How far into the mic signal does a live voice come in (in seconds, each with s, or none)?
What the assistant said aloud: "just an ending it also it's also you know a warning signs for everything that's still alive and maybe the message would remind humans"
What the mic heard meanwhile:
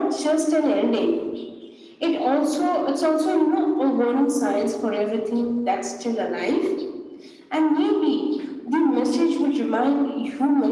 none